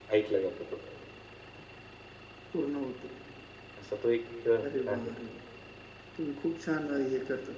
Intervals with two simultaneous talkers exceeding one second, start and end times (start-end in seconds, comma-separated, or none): none